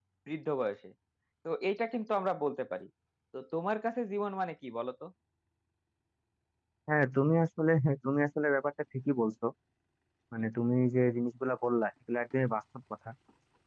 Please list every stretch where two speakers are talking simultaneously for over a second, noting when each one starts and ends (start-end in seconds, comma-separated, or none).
none